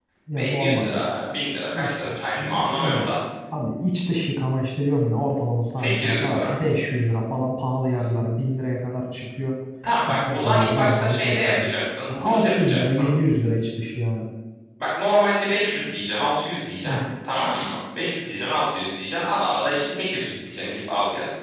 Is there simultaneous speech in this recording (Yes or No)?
Yes